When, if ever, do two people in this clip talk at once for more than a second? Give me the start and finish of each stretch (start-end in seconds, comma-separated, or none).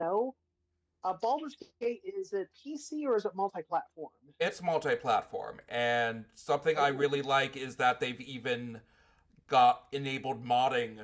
none